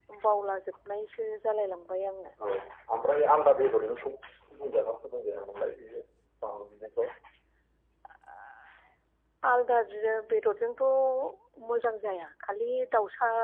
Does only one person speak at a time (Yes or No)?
Yes